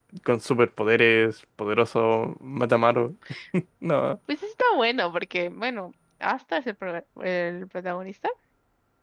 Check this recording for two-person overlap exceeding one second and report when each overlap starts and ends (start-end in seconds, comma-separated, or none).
none